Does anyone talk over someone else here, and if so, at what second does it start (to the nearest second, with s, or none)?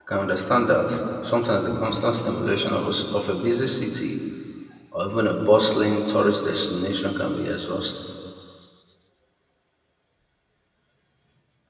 none